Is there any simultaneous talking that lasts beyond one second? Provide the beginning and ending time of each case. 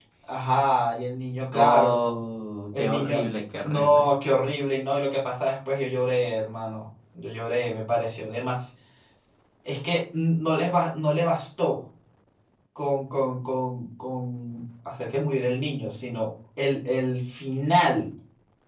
none

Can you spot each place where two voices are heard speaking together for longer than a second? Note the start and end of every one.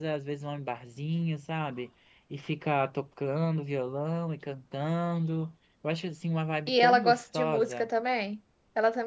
6.7-7.9

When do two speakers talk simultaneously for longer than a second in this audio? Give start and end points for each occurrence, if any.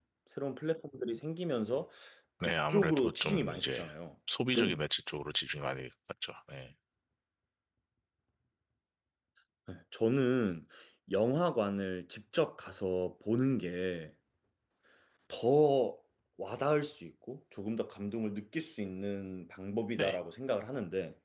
2.4-3.9

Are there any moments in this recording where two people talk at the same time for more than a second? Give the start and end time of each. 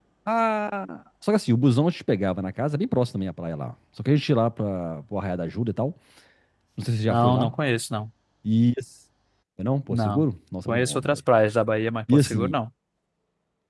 none

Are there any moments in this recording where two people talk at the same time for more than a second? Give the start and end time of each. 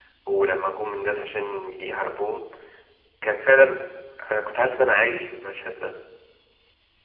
none

